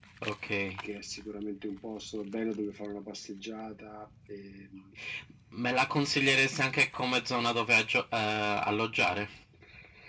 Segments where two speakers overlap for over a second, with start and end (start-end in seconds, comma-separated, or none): none